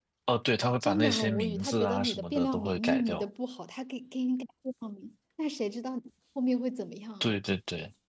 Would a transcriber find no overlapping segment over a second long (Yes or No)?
No